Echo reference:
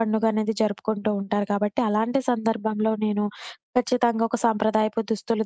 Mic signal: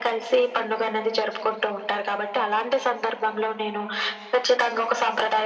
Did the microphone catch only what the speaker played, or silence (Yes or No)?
Yes